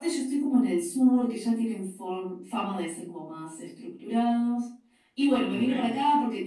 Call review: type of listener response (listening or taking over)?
listening